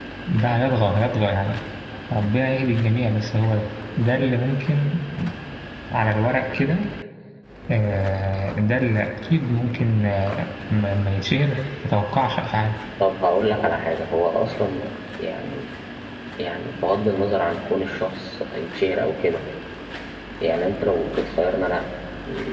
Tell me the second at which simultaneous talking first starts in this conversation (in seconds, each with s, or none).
none